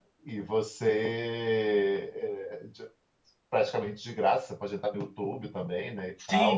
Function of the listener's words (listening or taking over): taking over